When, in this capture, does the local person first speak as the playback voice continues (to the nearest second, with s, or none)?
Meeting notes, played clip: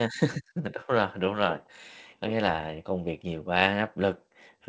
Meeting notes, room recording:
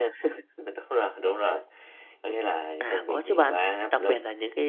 3 s